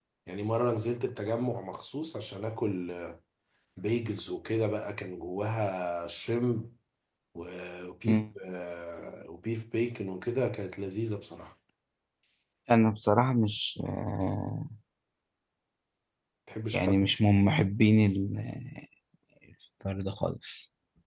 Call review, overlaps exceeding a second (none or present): none